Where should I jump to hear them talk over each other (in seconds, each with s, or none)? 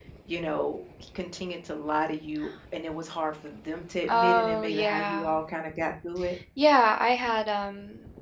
4.0 s